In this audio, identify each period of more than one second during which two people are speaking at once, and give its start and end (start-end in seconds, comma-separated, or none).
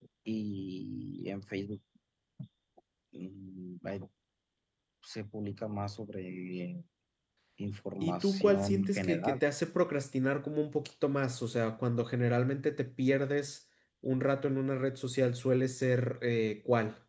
8.0-9.4